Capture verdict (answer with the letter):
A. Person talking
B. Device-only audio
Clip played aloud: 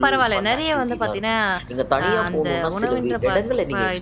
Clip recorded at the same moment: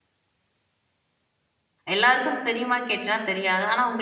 A